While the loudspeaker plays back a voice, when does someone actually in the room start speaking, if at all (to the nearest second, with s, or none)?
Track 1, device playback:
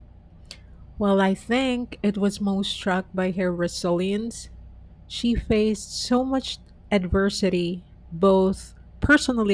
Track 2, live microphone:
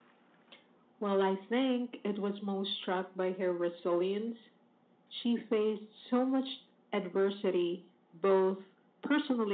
none